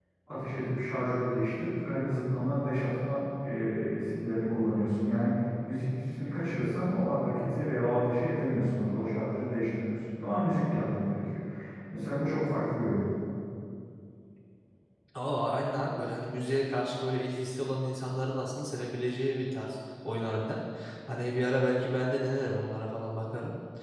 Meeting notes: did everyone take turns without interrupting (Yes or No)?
Yes